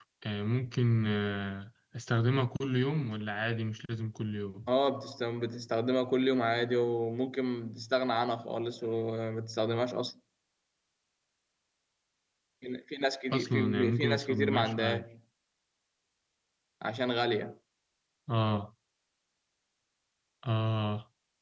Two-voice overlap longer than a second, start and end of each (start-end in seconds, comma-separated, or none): 13.3-15.0